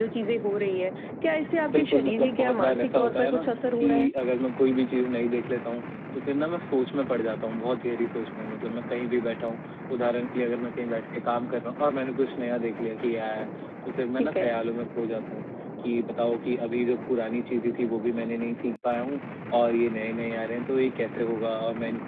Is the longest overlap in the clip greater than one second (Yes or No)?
Yes